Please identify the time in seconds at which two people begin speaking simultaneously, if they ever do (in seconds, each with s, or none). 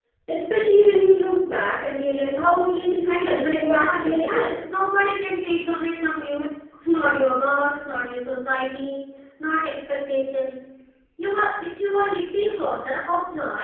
3.0 s